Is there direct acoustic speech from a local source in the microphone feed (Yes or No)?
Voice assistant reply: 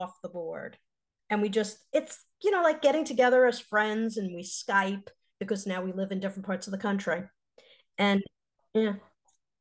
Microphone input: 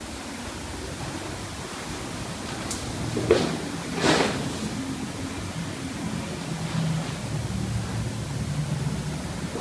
No